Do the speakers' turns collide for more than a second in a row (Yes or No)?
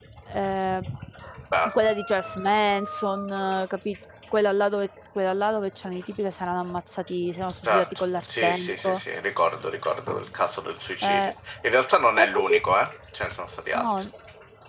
Yes